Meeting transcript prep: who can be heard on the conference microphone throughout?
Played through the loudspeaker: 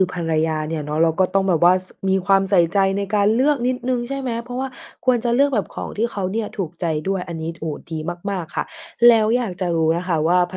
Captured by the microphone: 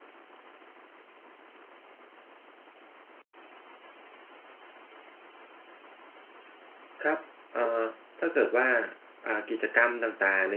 user only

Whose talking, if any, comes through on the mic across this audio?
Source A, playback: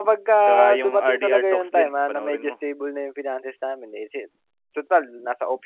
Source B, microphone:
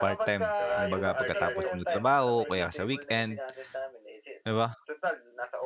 both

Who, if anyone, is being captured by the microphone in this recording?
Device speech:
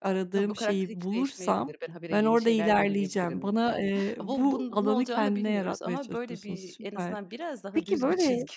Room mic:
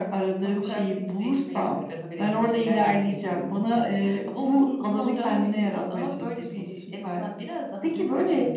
echo only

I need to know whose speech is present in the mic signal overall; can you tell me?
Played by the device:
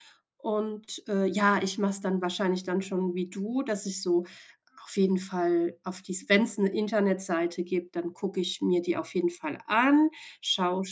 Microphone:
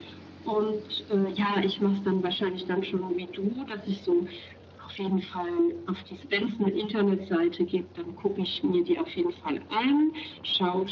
echo only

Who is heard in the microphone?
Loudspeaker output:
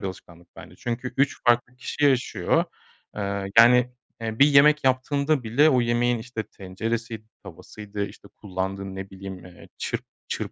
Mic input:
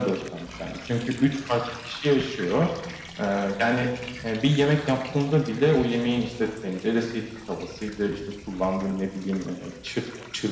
echo only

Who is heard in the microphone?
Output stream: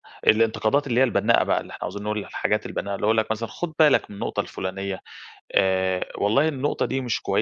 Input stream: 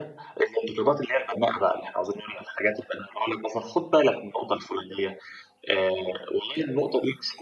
echo only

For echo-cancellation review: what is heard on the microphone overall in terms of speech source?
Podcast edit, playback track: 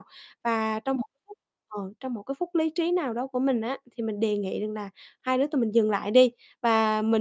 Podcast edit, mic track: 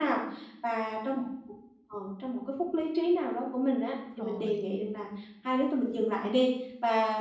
both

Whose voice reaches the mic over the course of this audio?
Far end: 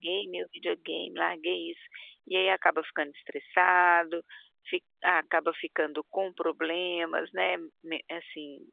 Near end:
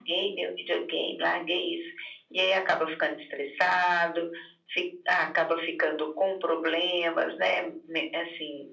echo only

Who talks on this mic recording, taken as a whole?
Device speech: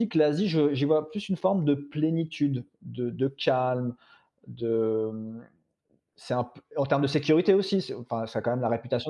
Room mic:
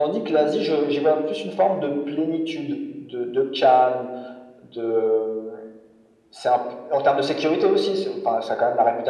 echo only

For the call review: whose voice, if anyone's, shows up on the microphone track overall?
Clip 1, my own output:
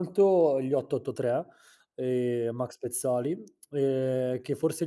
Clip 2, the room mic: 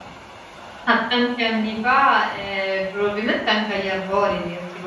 user only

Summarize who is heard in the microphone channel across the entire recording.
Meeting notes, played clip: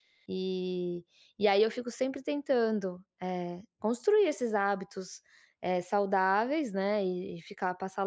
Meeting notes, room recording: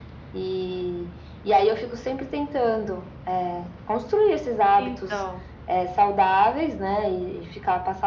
both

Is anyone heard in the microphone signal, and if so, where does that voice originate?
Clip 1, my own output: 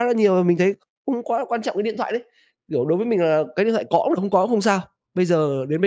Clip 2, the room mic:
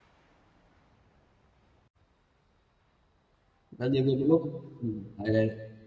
user only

